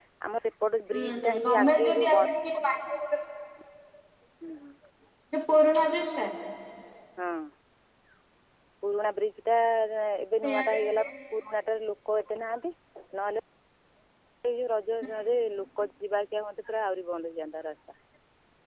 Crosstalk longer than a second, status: present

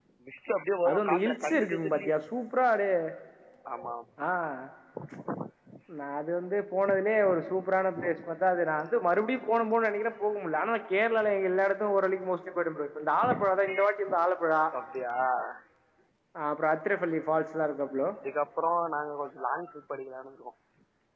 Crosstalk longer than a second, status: present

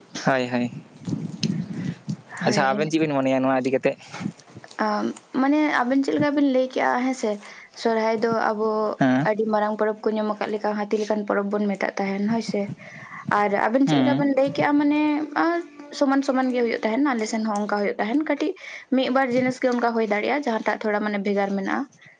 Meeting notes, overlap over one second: none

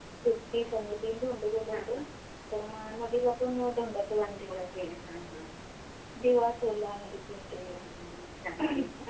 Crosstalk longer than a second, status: none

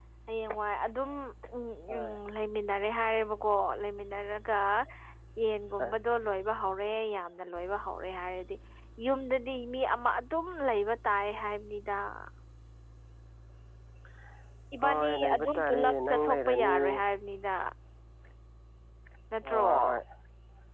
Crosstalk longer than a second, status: present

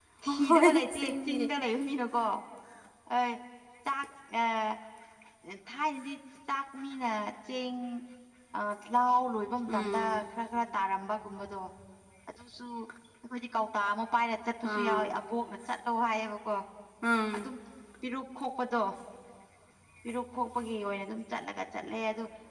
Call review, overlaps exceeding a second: present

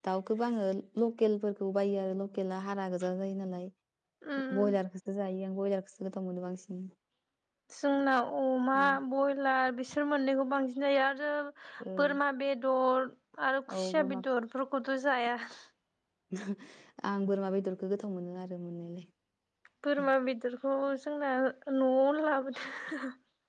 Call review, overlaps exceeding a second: none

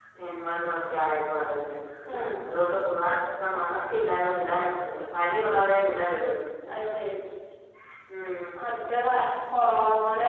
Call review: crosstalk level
none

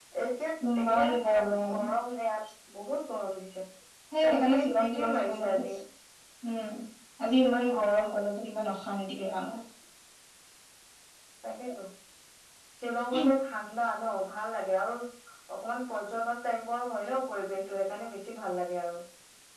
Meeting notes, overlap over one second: present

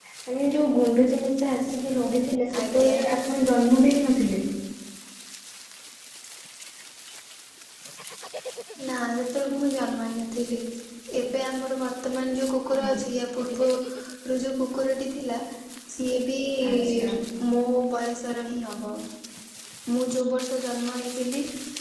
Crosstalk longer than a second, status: none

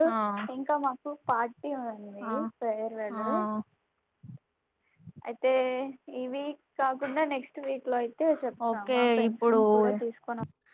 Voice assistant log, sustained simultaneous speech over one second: present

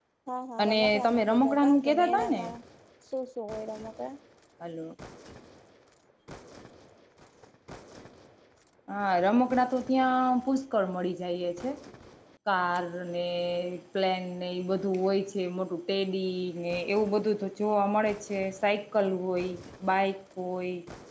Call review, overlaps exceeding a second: present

